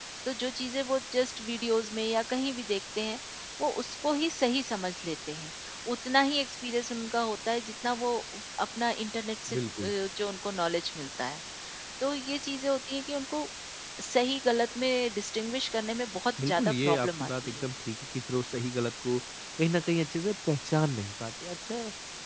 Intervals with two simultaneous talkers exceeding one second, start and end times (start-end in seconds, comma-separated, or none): 16.5-17.7